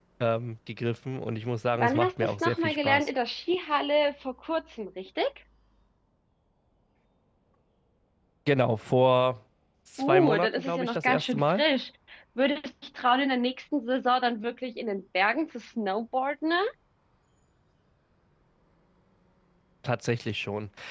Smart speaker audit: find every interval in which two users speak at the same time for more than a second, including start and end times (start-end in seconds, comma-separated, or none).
1.8-3.1, 10.0-11.6